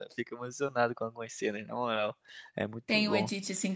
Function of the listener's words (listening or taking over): taking over